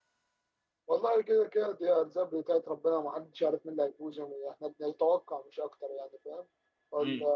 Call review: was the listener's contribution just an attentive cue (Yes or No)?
Yes